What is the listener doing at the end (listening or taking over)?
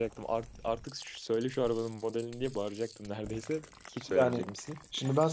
taking over